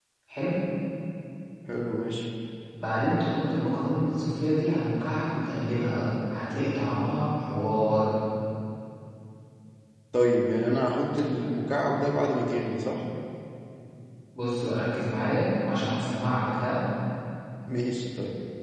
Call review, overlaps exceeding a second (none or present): none